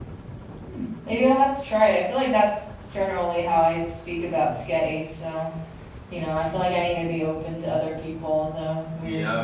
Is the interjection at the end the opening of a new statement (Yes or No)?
Yes